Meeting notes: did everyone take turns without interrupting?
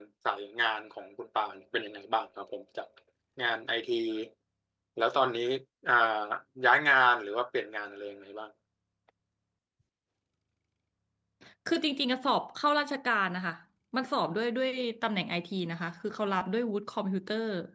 Yes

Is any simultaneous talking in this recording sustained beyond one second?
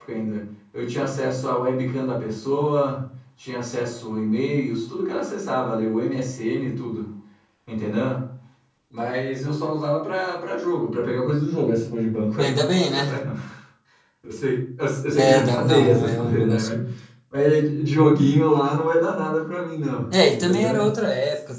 Yes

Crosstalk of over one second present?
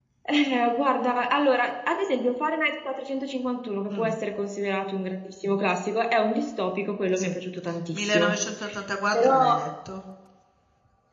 No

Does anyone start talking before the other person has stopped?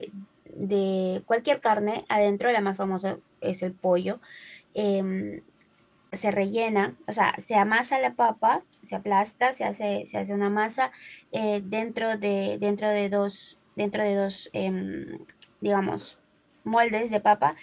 No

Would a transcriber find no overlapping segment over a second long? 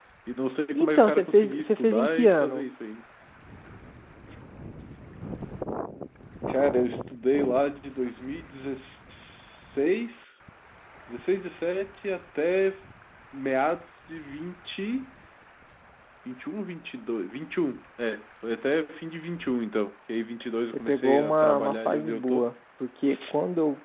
No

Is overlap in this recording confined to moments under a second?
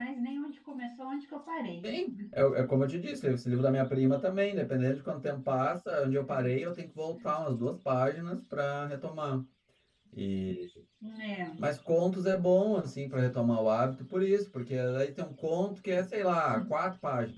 Yes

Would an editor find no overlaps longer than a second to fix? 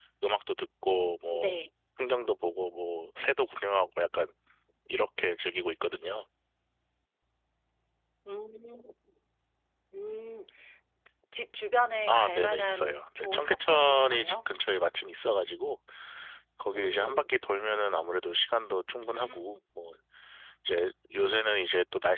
No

